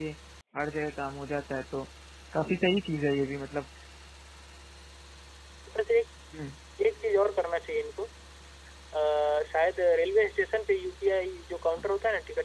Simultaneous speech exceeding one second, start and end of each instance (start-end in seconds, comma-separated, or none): none